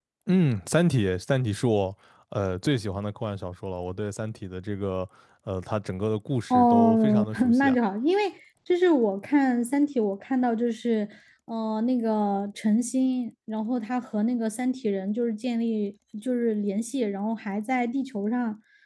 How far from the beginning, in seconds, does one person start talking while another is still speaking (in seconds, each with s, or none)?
6.5 s